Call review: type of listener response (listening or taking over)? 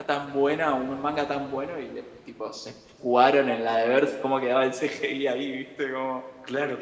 taking over